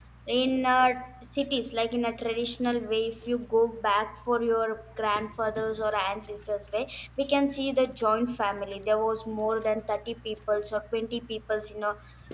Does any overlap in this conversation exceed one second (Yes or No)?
No